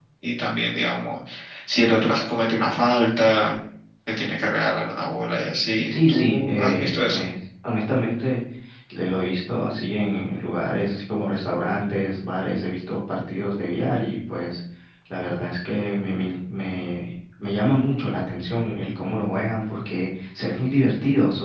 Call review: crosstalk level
present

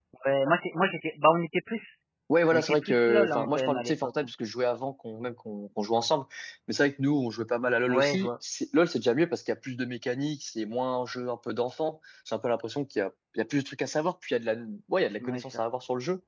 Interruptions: present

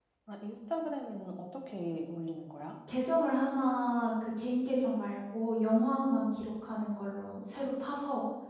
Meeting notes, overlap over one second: none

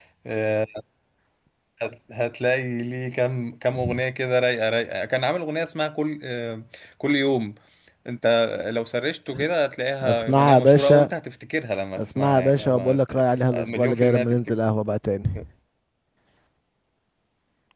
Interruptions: present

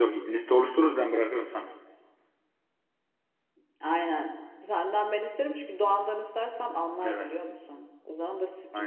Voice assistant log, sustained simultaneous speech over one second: none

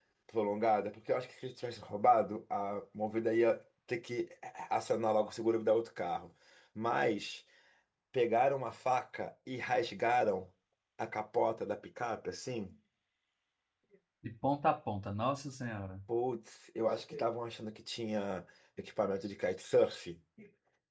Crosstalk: none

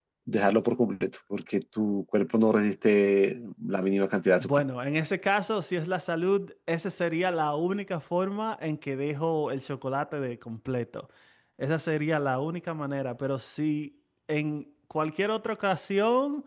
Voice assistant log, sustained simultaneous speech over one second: none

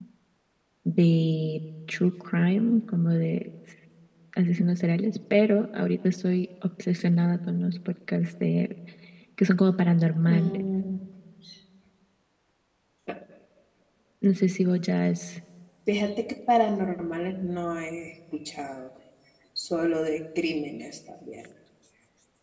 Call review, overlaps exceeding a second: none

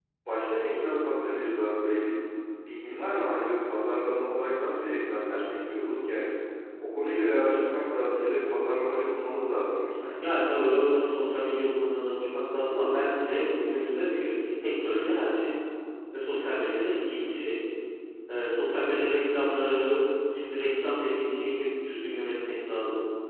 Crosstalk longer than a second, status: none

